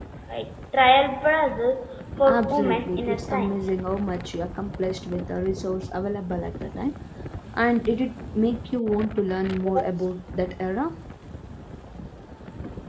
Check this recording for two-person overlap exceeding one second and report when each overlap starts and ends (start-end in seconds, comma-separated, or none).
2.2-3.6